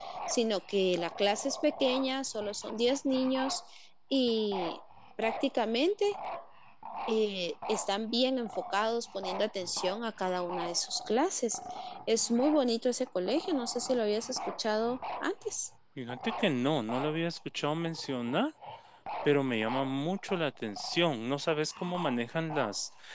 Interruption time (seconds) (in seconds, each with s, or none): none